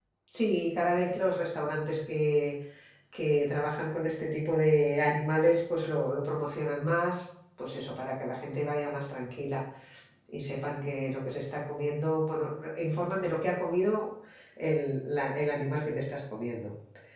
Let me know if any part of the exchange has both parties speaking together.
No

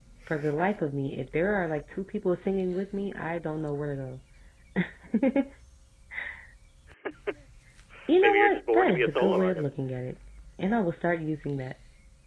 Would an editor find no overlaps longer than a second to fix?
No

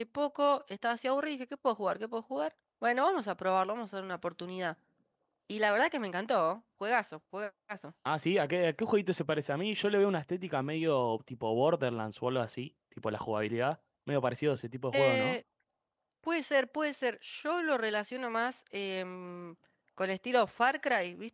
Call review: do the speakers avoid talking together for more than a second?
Yes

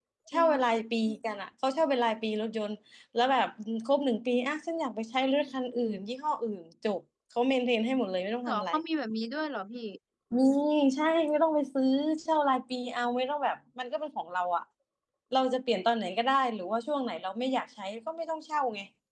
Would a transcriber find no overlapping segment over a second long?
Yes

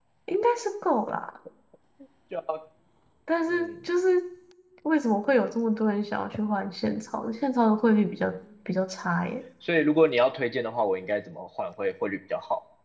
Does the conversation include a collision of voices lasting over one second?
No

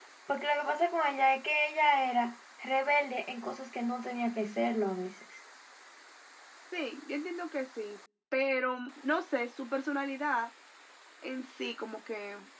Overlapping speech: No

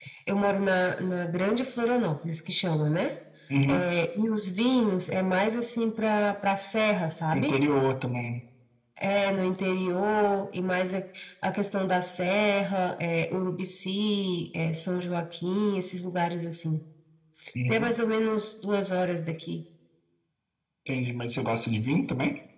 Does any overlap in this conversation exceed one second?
No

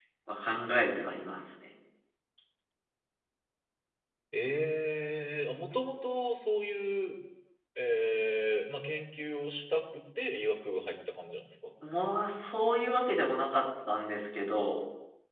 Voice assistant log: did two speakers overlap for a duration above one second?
No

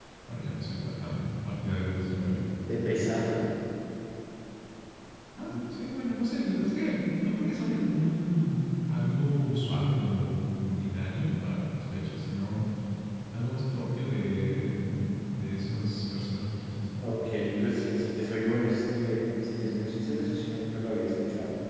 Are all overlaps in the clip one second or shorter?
Yes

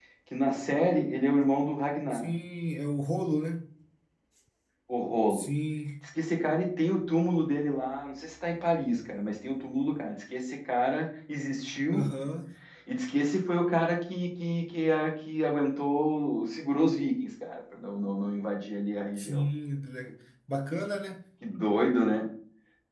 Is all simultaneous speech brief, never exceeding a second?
Yes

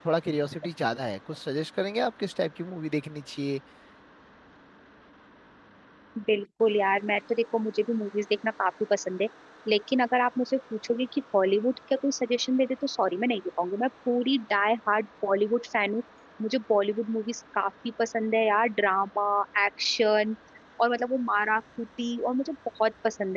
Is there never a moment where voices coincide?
Yes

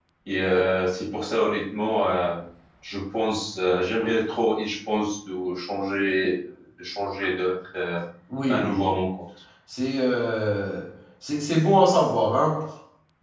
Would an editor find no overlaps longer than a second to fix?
Yes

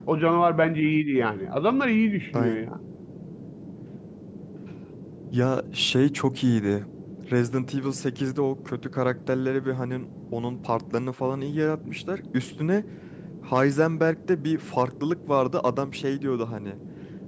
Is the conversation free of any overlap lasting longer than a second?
Yes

